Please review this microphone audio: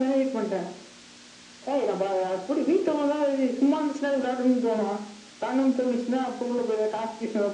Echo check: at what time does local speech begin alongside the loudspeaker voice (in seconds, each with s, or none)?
none